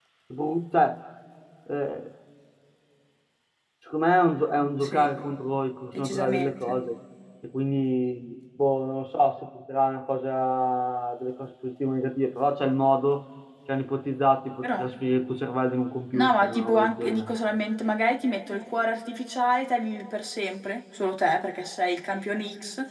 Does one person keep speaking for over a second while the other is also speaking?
Yes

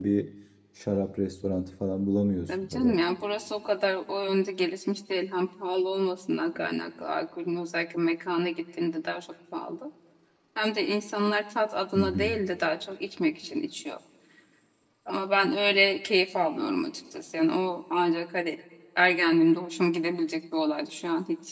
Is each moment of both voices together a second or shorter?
Yes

